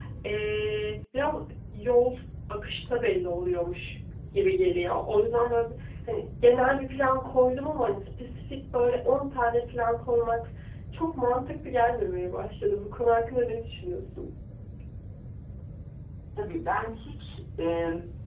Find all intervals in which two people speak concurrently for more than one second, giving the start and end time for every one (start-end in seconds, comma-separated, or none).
none